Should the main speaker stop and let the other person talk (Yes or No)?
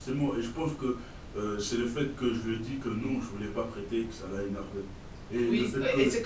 Yes